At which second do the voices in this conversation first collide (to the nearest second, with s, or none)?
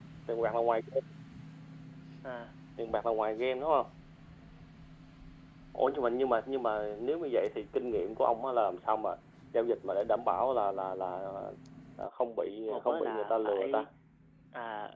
13 s